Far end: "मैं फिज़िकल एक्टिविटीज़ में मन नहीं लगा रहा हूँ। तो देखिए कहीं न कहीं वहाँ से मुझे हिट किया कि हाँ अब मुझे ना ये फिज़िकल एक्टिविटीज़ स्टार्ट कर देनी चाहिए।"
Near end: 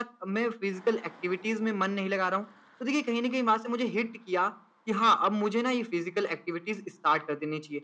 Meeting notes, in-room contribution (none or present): none